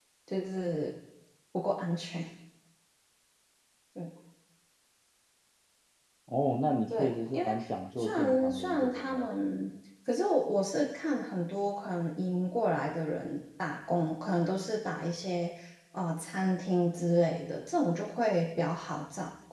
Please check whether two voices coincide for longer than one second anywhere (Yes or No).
Yes